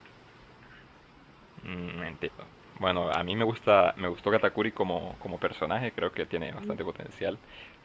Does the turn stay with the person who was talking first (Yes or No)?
Yes